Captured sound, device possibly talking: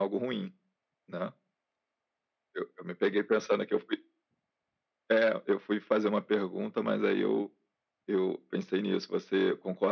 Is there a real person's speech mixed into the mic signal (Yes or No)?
No